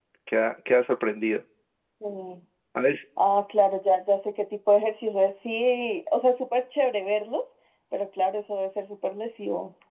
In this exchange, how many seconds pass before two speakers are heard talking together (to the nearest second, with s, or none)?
none